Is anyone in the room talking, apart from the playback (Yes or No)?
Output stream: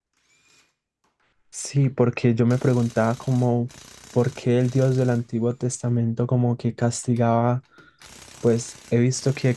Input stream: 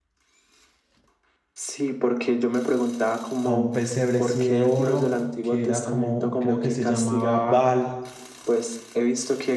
Yes